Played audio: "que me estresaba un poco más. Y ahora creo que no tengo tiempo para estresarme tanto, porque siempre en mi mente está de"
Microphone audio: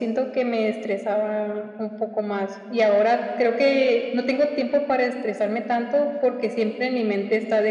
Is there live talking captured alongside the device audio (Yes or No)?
No